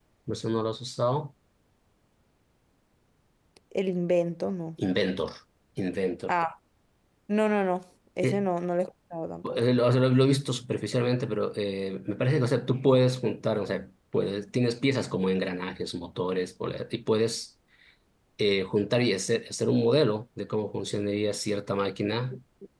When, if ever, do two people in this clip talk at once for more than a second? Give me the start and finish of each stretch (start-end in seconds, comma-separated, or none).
none